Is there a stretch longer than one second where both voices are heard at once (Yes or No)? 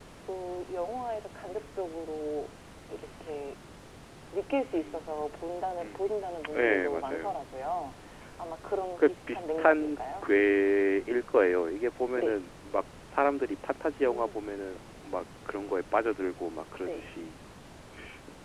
Yes